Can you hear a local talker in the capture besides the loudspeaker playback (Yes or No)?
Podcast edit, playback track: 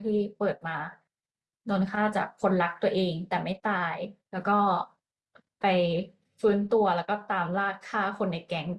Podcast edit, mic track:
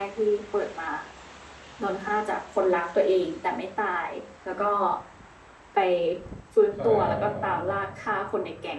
Yes